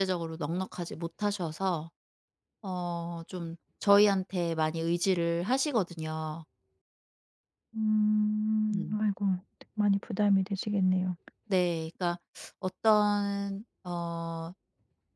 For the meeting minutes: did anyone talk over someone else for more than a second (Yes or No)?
No